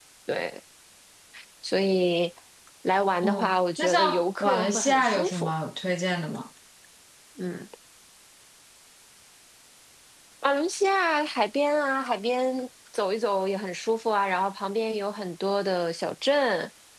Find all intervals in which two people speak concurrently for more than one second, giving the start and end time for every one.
3.2-5.5

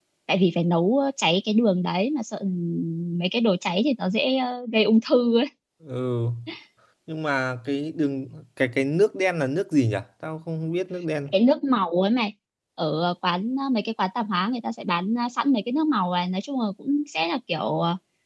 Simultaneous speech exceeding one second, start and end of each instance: none

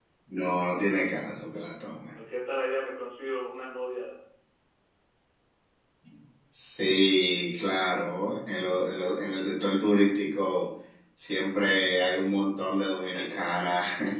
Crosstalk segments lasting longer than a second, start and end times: none

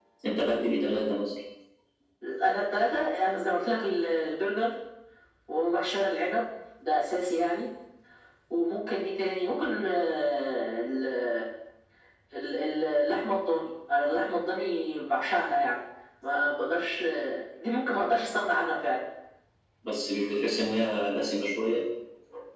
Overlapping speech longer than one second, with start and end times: none

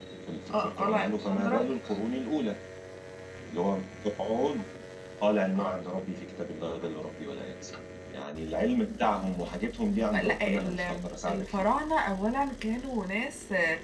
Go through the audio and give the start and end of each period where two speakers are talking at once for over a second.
0.5-1.7, 10.1-11.6

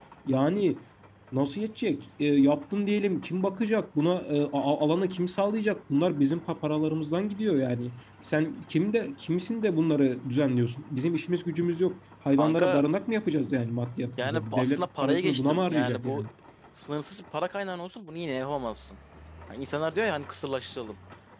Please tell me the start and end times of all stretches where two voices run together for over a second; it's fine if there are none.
14.2-16.3

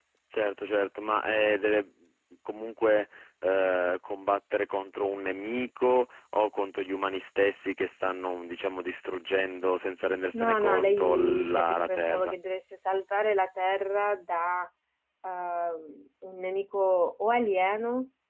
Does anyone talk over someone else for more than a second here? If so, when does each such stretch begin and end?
10.3-12.3

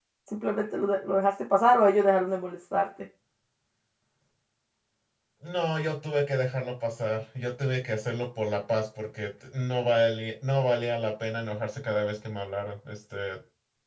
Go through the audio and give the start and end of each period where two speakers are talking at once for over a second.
none

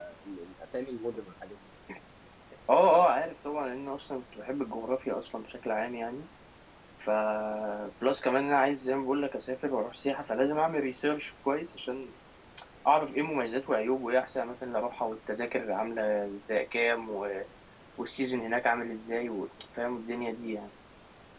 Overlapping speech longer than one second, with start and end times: none

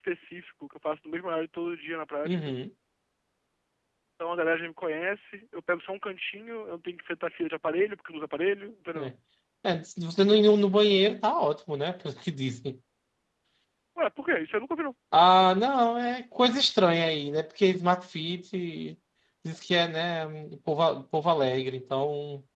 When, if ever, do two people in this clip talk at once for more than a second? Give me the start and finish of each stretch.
none

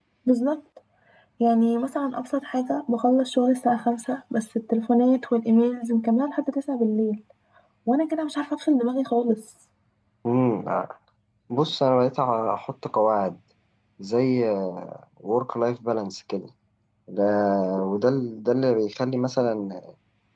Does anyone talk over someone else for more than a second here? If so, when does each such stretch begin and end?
none

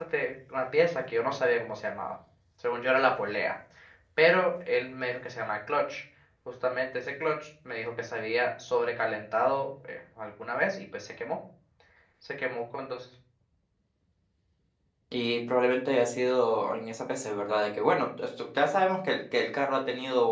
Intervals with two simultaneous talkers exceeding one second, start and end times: none

